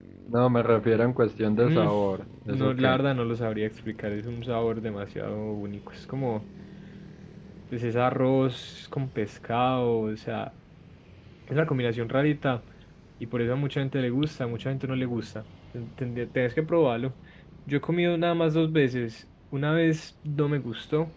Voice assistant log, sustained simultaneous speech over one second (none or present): none